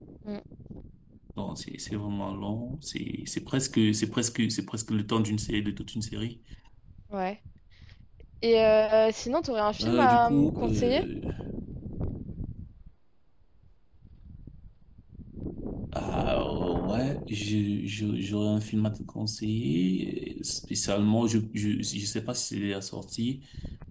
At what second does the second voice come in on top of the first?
9.8 s

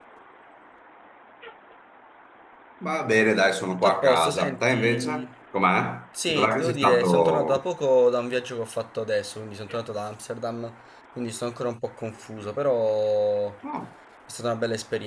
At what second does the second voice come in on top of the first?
3.7 s

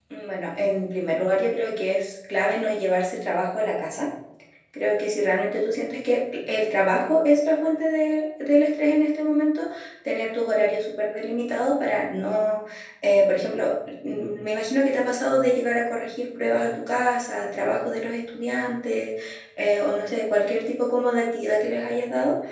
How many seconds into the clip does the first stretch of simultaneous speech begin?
none

